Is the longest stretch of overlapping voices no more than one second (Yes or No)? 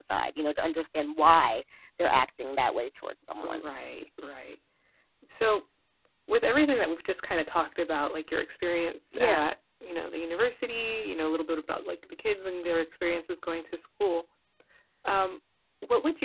Yes